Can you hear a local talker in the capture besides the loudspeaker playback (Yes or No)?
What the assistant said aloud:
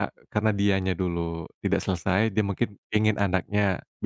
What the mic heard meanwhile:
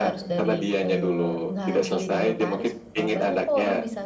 Yes